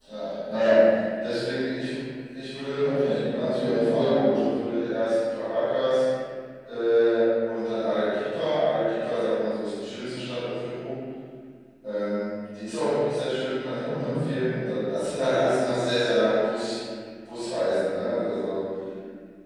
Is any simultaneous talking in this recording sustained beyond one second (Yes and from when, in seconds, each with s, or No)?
Yes, from 2.8 s